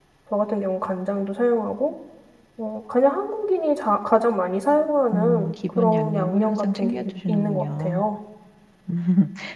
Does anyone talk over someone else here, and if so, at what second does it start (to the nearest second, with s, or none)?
5 s